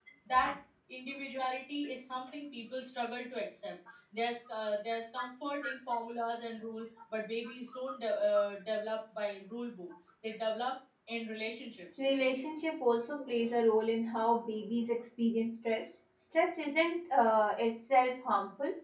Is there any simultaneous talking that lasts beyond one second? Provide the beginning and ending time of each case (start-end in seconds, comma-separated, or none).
none